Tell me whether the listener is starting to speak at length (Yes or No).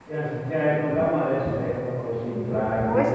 Yes